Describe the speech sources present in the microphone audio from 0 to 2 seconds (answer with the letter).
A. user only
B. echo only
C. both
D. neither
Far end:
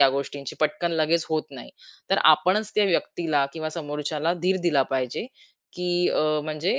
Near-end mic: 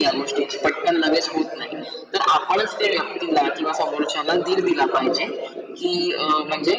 B